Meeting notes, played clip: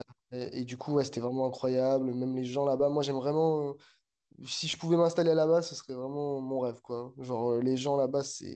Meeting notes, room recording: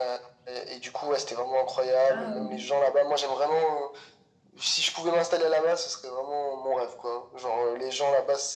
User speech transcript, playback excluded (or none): Ah, euh,